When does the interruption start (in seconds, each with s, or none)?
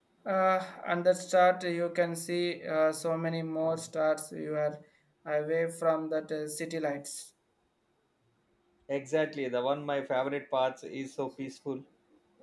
none